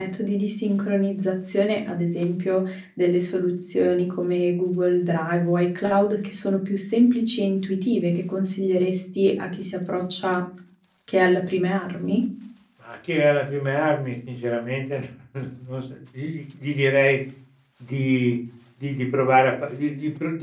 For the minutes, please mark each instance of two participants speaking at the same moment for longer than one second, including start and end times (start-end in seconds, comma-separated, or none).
none